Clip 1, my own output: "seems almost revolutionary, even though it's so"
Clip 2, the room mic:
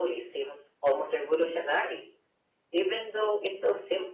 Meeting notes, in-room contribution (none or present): none